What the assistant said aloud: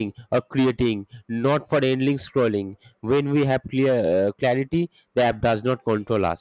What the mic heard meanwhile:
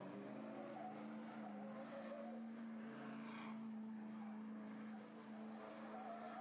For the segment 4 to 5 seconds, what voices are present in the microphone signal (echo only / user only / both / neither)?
neither